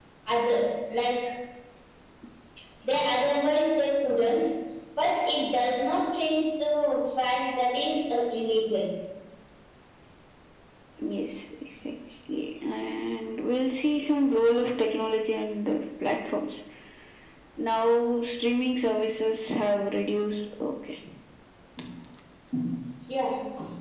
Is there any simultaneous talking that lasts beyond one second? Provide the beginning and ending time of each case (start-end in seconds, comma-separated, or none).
none